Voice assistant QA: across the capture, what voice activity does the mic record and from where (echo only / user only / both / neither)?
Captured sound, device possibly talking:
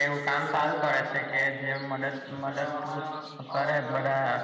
both